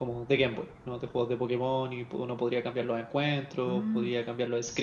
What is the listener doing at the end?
taking over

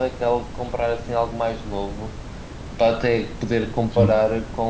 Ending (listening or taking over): listening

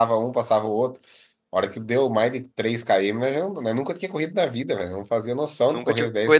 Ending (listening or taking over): taking over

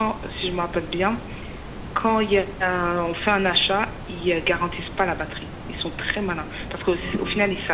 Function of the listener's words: listening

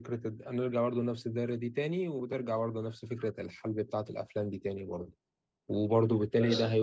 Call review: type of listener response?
listening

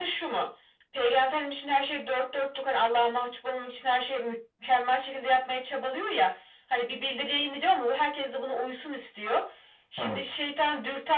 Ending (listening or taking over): listening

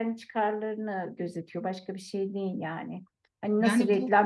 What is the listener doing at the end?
listening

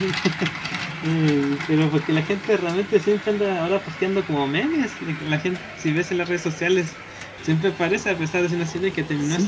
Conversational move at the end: taking over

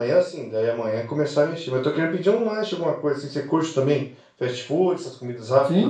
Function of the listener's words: taking over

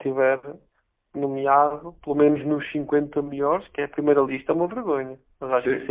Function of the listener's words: taking over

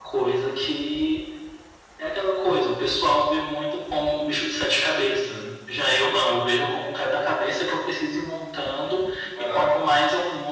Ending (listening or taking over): listening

